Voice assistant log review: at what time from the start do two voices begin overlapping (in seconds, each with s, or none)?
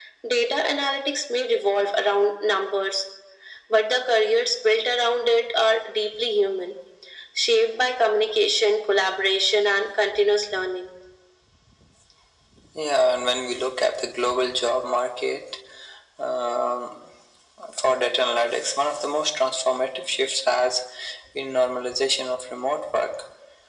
none